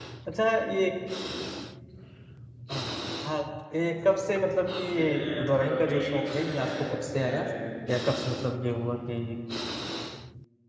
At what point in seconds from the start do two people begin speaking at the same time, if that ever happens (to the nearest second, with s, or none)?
5 s